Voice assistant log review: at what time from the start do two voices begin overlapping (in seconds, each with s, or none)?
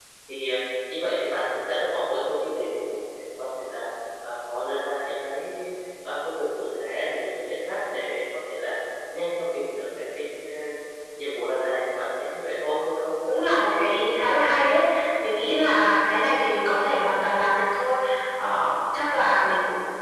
none